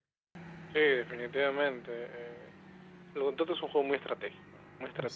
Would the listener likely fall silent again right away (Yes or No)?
Yes